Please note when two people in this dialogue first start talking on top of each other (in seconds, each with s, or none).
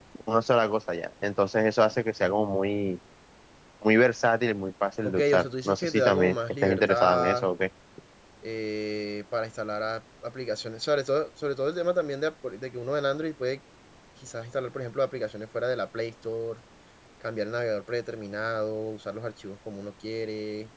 5.0 s